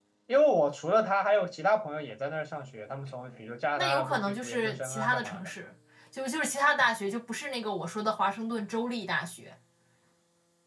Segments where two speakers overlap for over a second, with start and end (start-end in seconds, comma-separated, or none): 3.8-5.5